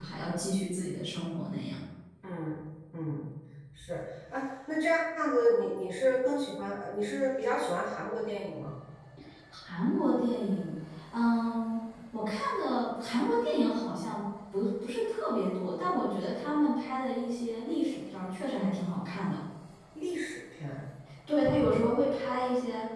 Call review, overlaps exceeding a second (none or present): none